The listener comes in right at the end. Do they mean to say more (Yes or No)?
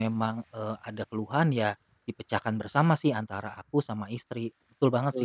Yes